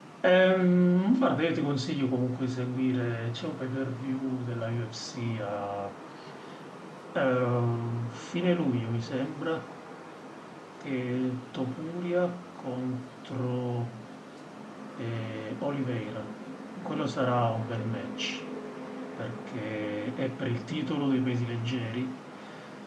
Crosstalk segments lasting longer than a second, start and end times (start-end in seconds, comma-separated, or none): none